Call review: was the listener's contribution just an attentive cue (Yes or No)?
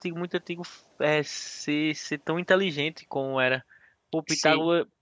Yes